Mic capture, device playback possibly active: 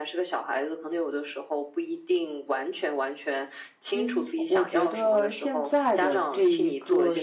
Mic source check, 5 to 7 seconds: both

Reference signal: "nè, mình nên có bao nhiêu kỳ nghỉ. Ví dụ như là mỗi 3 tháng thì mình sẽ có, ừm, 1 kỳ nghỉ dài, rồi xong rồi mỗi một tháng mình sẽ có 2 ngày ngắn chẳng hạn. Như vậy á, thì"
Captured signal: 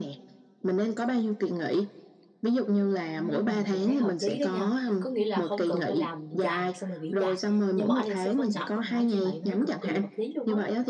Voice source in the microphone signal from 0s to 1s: echo only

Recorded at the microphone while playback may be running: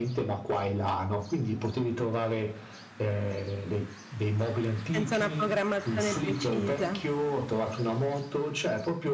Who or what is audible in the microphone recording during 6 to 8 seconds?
both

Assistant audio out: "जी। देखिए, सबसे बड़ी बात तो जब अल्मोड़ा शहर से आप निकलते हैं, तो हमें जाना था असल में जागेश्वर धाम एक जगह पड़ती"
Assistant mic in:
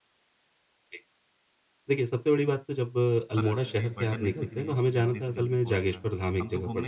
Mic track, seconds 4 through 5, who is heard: both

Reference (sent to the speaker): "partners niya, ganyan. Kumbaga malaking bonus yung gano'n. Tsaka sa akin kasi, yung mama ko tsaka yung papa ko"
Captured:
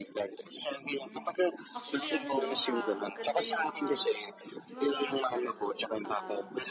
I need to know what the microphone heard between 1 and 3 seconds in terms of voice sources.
both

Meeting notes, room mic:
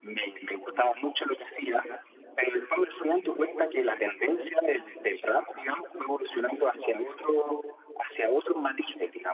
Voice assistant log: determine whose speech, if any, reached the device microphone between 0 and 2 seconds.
echo only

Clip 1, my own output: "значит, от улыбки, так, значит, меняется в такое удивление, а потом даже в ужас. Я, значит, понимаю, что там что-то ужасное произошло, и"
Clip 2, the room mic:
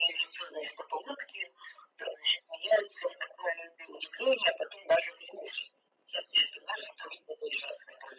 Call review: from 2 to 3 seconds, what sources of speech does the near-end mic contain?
echo only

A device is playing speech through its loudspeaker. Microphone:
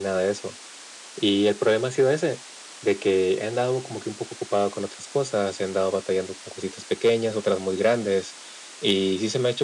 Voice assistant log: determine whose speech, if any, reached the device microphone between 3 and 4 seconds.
echo only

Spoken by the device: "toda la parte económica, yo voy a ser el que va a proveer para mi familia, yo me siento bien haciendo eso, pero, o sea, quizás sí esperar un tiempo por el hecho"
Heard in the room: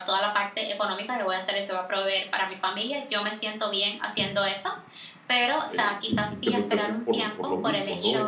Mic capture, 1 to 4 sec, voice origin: echo only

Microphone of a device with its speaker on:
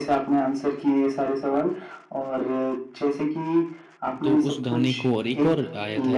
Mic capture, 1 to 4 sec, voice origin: echo only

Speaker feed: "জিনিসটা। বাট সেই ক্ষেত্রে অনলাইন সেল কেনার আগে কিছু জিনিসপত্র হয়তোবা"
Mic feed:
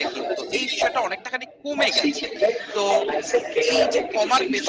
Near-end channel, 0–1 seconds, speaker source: both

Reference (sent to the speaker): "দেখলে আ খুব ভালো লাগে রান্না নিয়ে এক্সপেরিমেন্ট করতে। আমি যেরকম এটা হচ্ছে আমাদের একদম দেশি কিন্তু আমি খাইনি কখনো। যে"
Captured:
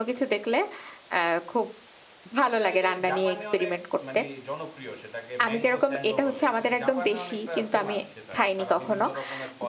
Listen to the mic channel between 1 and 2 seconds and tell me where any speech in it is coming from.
echo only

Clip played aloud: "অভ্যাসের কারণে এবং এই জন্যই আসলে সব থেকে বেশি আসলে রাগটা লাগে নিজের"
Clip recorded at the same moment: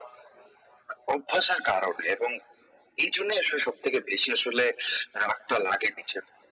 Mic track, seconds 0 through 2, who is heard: echo only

